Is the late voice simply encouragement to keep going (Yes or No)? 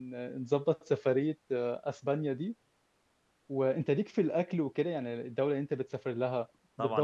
No